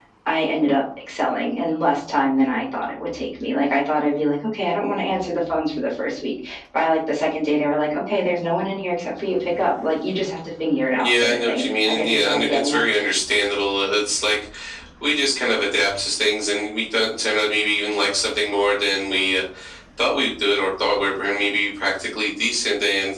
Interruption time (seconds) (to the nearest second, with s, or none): 11 s